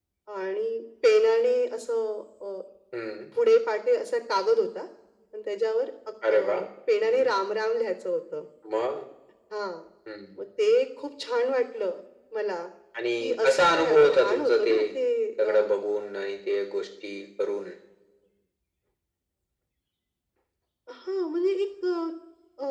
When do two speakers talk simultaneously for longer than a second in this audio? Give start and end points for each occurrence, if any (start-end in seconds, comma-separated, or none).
13.2-14.7